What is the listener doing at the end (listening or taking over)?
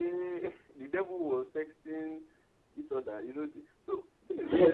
taking over